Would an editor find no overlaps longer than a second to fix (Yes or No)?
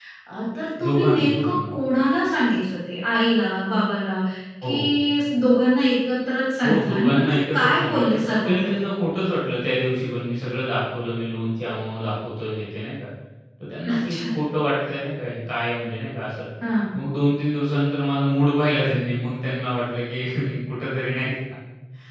No